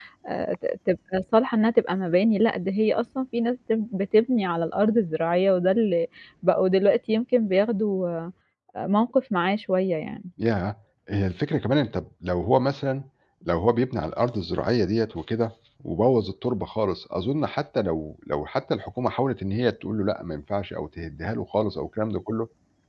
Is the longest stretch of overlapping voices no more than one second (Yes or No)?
Yes